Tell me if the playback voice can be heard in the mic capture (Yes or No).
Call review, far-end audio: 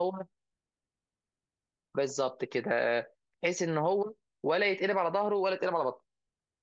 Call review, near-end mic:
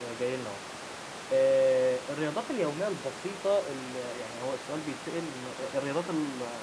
No